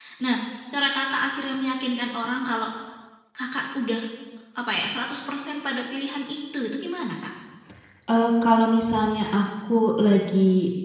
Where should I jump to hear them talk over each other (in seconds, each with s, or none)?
none